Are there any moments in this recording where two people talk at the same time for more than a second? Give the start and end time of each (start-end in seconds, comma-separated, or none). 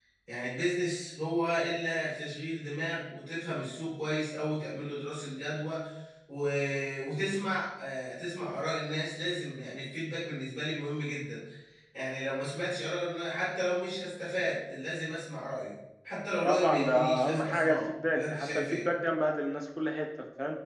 16.4-18.9